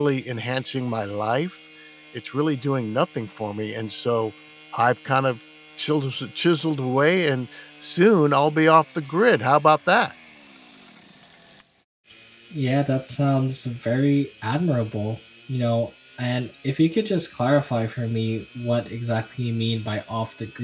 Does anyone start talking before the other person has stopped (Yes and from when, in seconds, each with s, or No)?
No